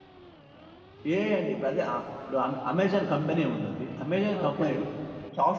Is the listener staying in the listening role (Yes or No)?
Yes